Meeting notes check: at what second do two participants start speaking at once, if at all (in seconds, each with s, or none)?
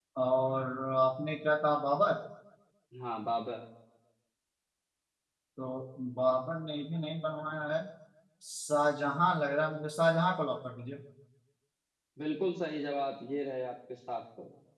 none